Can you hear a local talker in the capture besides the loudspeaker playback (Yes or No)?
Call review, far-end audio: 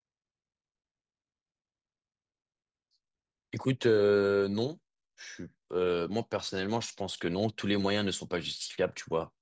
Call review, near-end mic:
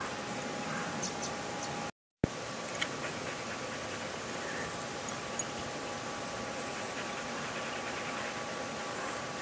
No